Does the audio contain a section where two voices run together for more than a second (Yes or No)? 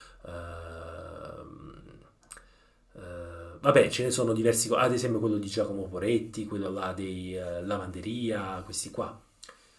No